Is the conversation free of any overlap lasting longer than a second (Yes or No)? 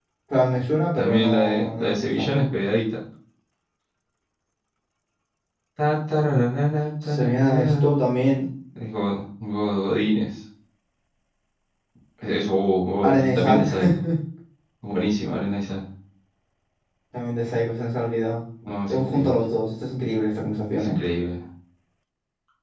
No